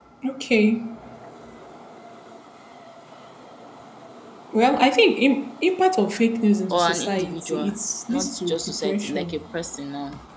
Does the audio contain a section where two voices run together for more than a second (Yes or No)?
Yes